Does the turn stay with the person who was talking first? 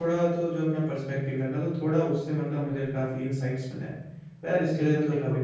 No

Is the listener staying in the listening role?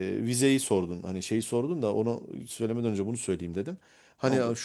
Yes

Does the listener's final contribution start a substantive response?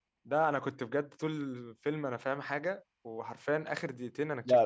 Yes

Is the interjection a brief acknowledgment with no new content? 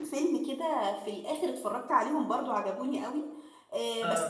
Yes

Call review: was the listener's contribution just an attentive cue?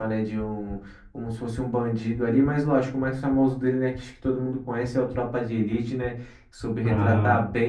Yes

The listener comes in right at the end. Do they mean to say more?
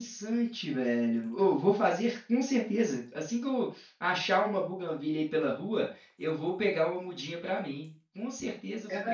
Yes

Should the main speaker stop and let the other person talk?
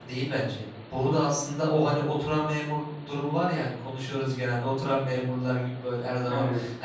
No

